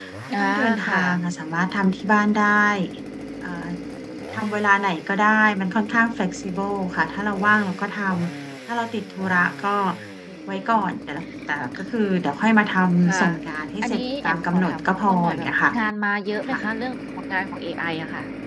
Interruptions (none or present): present